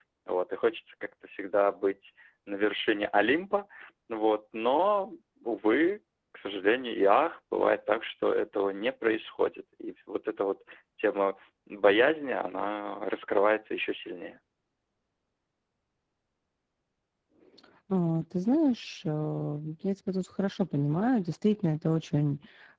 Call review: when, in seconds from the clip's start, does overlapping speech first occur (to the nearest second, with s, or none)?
none